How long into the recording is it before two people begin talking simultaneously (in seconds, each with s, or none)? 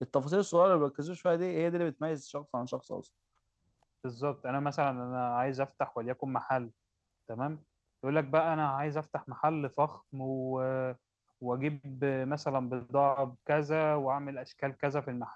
none